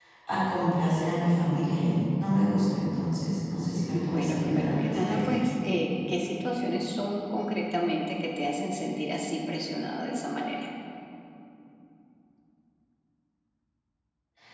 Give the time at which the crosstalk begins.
4 s

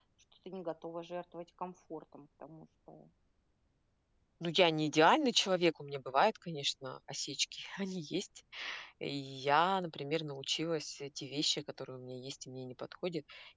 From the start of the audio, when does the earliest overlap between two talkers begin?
none

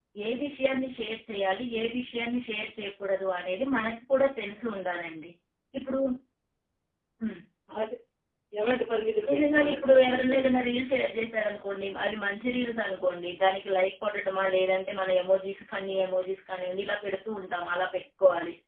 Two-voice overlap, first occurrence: 9 s

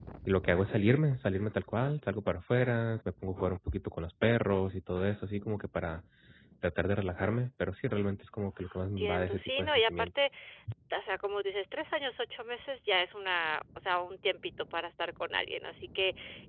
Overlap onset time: 8 s

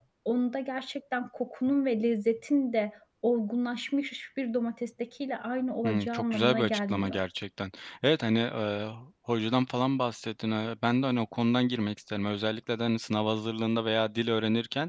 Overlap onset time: 6 s

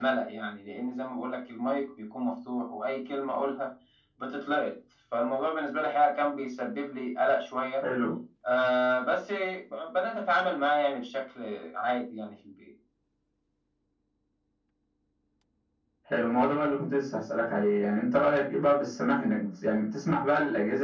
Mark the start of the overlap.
none

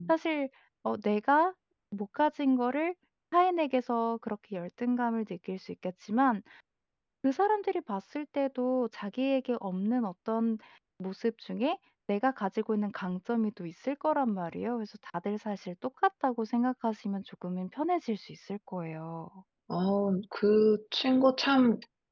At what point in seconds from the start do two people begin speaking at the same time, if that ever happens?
none

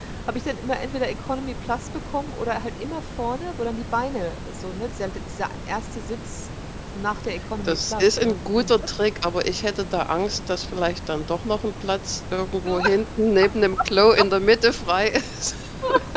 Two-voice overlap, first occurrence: 8 s

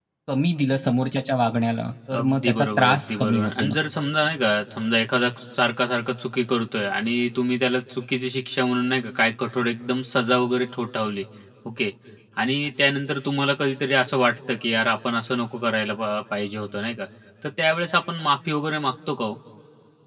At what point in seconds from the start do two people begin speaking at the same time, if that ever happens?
2 s

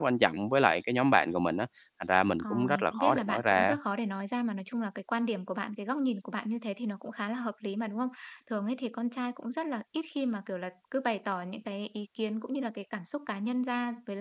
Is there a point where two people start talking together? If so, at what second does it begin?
2 s

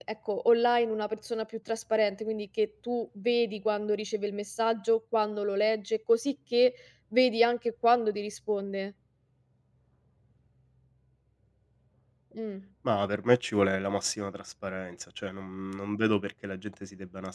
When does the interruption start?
none

